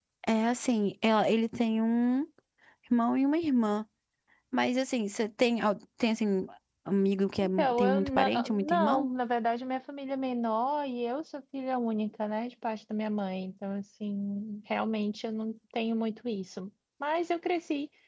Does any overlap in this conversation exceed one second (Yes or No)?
Yes